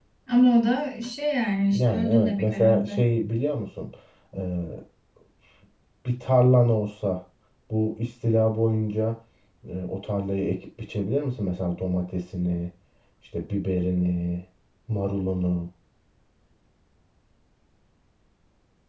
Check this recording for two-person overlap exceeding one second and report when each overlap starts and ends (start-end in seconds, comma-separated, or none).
1.7-3.0